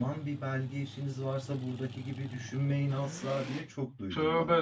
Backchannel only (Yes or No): No